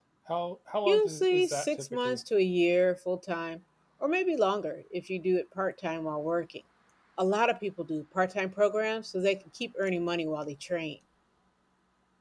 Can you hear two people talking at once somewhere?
Yes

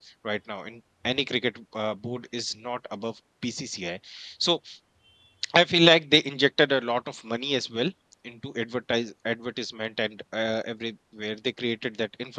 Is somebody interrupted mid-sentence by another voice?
No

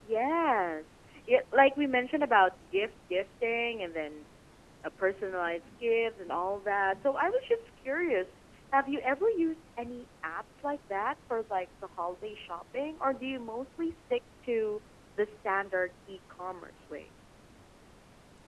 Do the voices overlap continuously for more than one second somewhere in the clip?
No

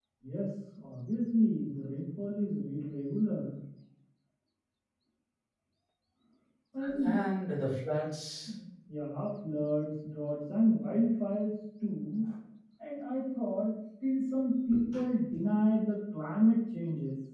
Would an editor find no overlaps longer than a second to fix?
Yes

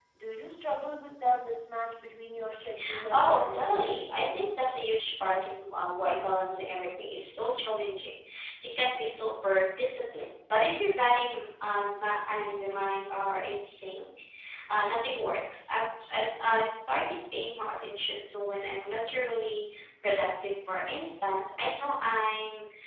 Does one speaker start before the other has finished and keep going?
Yes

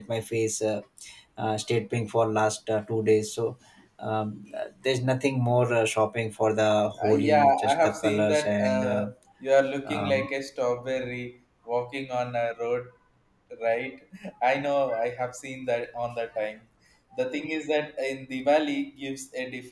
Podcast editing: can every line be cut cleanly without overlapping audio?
No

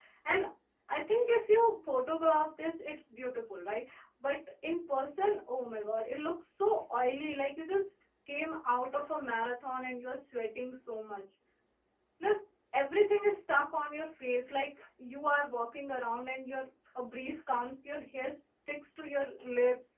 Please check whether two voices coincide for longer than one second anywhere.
No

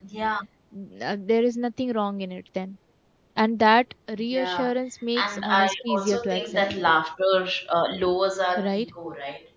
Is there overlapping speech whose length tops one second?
Yes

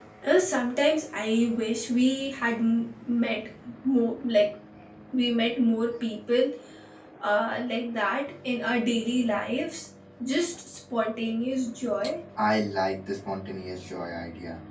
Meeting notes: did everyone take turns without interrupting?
Yes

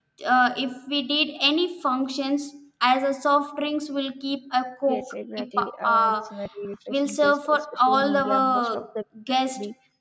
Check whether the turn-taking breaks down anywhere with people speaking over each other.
Yes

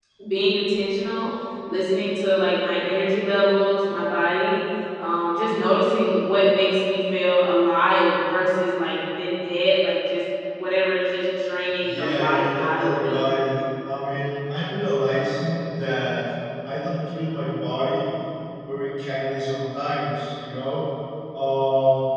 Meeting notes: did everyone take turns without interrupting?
No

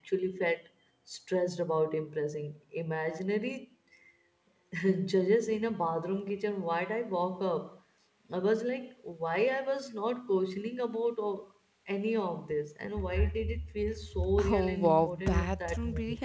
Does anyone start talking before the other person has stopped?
Yes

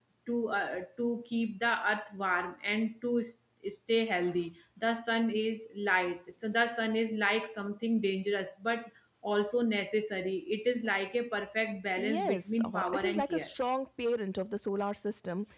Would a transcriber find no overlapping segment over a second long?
No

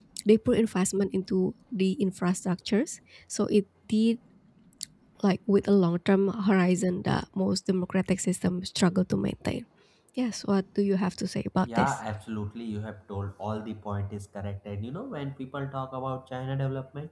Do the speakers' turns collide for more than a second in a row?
No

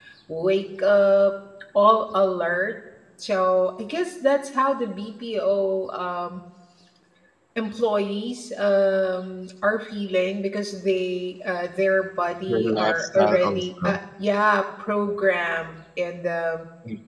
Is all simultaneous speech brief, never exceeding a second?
No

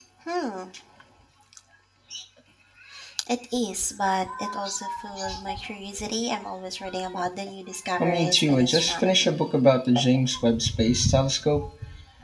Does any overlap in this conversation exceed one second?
Yes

